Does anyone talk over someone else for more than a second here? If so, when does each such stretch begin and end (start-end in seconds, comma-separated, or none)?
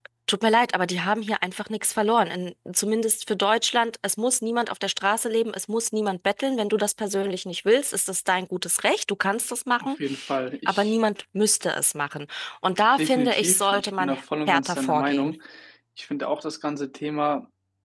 13.0-15.3